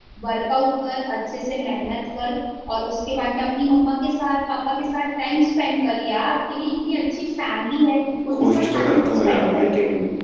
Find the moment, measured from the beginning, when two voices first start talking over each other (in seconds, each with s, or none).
8.3 s